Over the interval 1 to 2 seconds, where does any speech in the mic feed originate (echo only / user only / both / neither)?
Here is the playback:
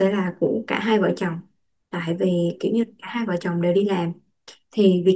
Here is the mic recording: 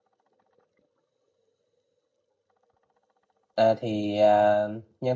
neither